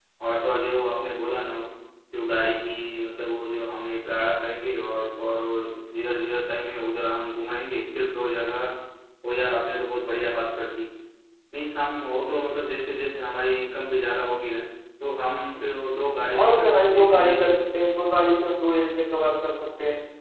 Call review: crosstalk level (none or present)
present